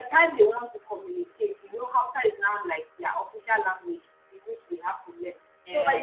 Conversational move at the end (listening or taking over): listening